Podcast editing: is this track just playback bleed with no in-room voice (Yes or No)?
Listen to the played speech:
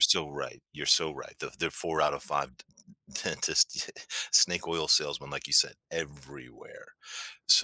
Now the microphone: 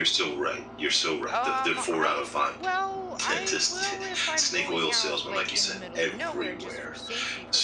No